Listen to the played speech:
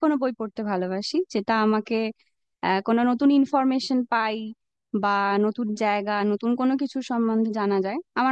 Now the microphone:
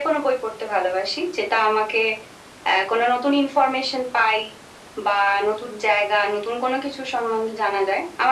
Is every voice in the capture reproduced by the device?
Yes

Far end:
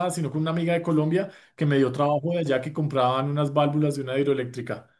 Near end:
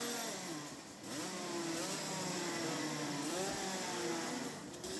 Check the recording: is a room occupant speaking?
No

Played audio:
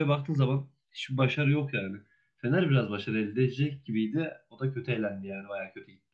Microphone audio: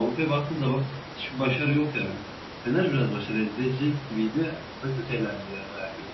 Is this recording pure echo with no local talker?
Yes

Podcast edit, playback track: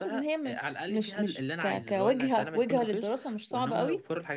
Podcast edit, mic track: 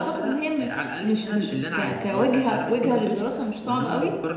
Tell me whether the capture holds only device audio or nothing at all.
Yes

